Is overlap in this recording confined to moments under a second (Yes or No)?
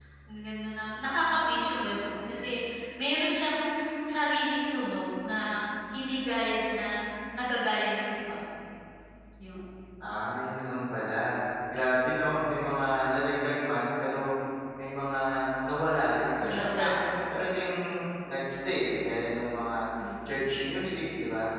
Yes